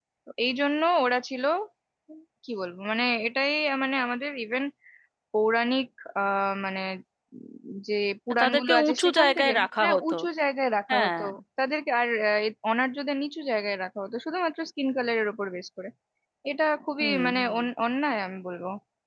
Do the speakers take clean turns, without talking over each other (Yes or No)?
No